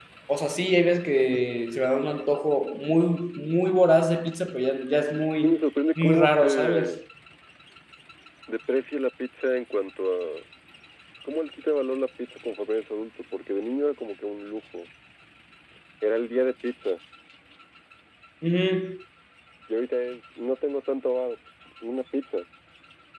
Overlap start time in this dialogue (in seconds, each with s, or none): 5.4 s